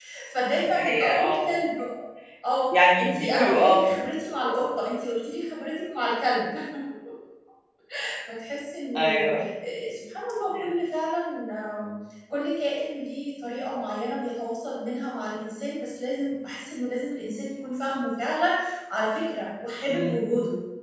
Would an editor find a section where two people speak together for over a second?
Yes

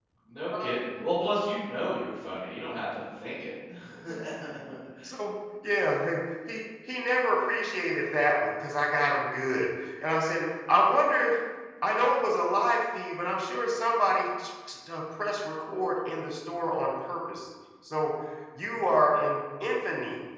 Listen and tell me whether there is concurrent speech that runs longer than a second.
No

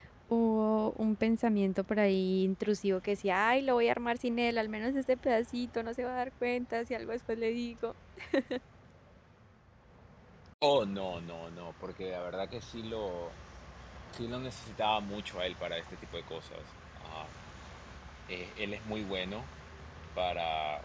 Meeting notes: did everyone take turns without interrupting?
Yes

